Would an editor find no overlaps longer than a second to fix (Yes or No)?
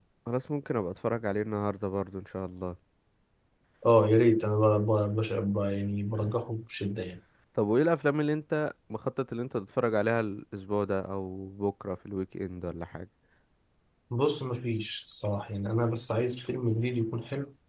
Yes